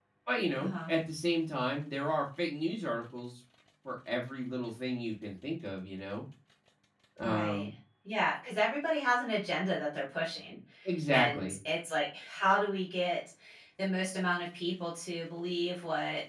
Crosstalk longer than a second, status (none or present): none